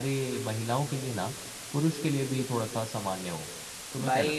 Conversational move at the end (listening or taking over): taking over